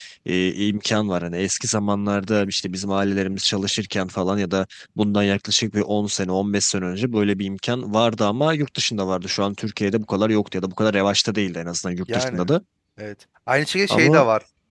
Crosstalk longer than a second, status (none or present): none